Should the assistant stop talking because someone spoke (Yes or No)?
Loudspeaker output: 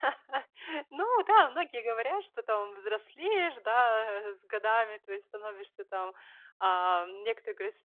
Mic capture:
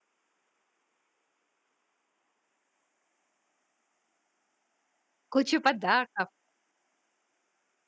Yes